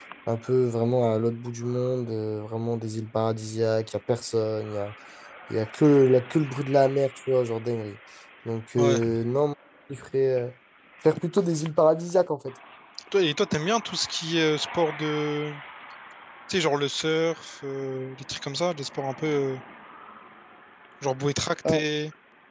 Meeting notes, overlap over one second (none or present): none